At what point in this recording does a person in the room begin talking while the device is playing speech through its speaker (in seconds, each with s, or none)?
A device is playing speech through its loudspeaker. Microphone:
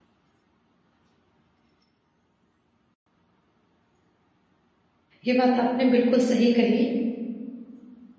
5.2 s